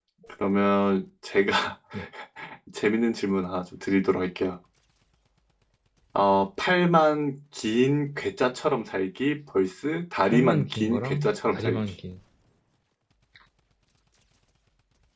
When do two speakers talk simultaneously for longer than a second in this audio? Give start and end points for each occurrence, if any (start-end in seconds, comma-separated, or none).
10.2-11.8